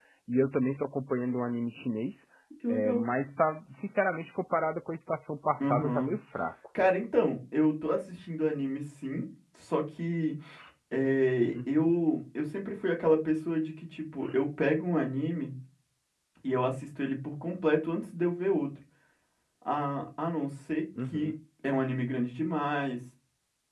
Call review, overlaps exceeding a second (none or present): none